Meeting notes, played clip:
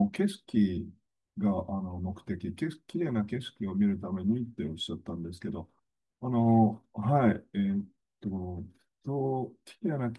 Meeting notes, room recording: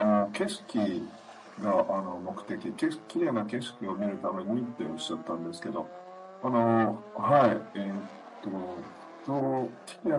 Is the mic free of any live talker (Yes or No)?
Yes